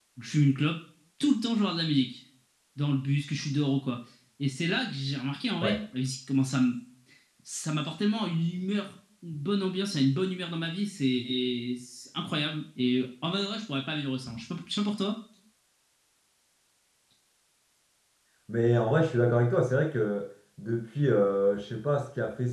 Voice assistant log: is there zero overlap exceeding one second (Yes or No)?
Yes